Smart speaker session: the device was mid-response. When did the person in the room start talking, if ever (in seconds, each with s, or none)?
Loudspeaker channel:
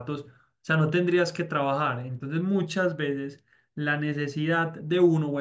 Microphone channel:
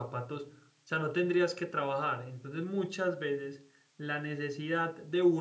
none